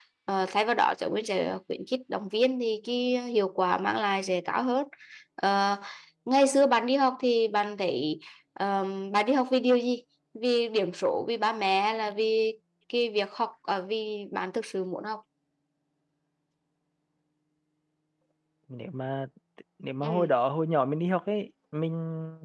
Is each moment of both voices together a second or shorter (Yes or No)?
Yes